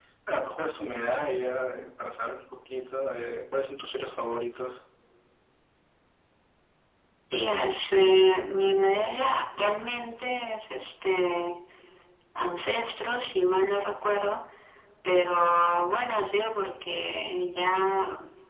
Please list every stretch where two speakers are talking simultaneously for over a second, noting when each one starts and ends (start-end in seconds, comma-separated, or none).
none